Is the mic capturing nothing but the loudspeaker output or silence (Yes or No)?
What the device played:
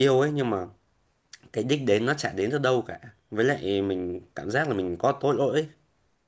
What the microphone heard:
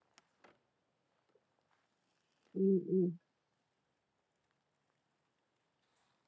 No